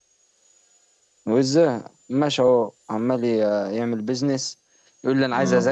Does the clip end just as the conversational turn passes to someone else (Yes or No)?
No